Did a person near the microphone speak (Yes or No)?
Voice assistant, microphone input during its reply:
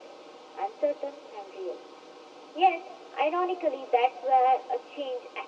No